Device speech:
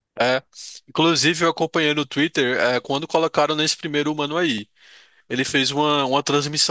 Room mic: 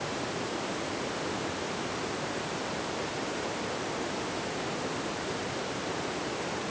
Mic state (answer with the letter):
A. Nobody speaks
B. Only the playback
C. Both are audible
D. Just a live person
A